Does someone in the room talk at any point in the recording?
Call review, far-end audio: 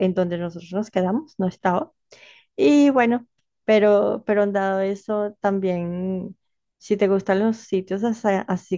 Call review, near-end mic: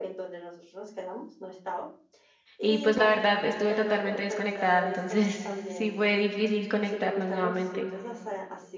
Yes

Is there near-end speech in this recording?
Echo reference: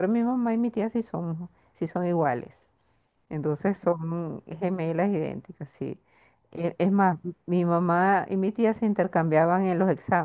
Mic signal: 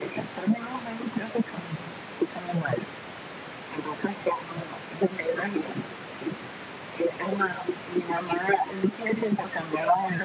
No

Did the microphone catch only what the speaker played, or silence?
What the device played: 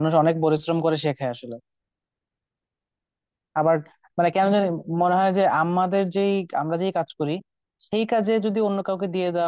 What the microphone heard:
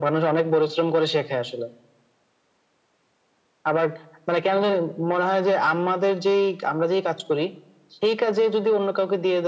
Yes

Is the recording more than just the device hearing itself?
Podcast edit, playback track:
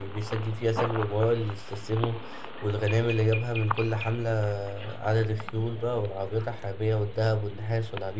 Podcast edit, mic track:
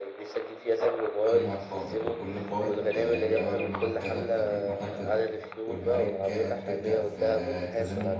Yes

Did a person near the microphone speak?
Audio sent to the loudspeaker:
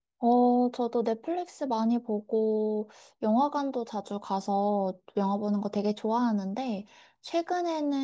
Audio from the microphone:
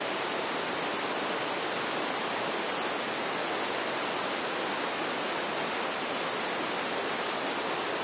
No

